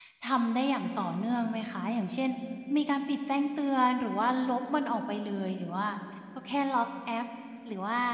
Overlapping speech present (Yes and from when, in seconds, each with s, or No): No